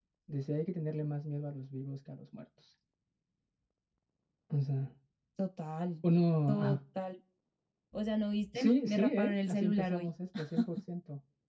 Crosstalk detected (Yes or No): Yes